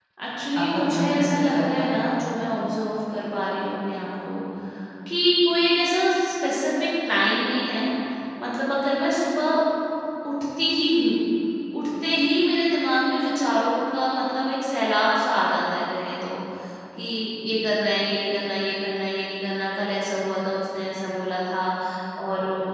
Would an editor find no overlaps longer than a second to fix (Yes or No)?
No